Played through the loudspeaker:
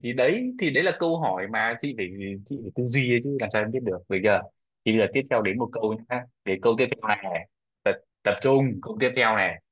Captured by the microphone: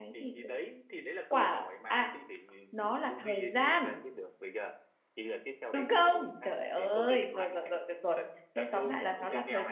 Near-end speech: present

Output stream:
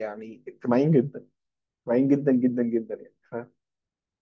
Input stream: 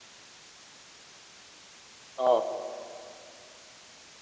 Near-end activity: present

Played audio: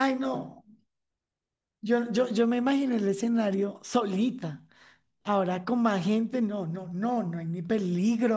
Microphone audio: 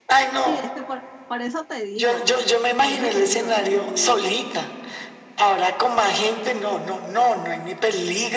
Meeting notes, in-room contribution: present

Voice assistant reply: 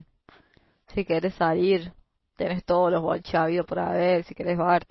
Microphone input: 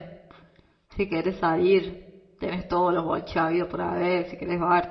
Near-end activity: none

